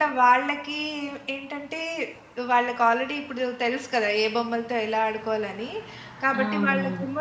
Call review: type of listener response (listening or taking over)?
listening